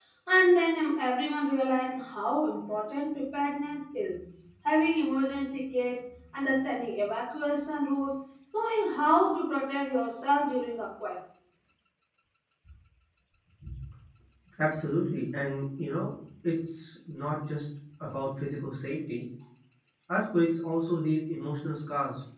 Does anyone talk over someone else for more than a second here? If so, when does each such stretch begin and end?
none

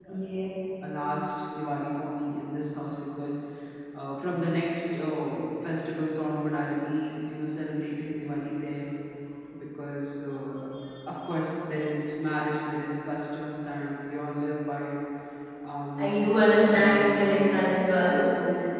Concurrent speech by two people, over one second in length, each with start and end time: 16.7-18.0

